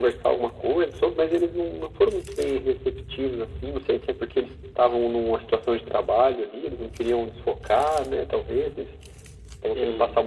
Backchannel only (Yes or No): Yes